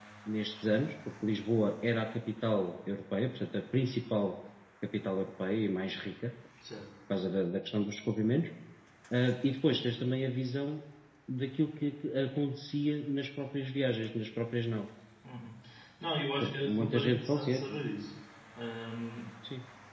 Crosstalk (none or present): present